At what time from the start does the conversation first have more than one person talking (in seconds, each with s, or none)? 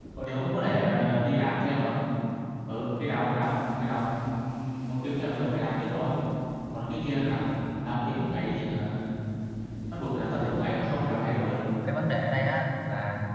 none